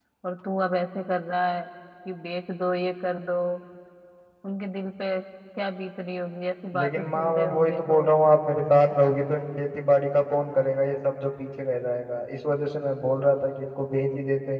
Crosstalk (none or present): present